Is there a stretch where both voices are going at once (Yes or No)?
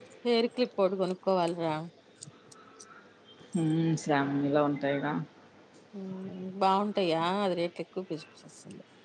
No